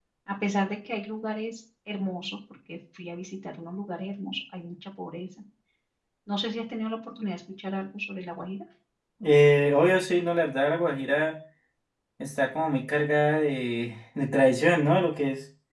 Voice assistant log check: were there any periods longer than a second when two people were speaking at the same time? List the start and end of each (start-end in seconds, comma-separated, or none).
none